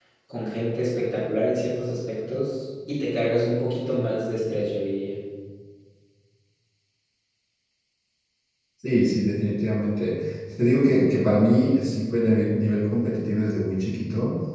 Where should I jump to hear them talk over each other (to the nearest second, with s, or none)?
none